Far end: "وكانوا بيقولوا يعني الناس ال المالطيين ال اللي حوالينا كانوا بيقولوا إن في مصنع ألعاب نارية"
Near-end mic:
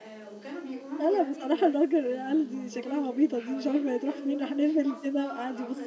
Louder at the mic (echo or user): user